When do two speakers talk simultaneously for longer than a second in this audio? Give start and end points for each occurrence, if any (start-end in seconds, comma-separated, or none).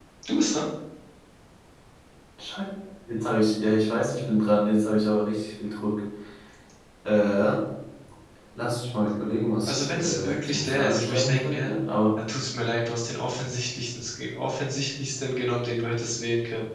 9.6-11.7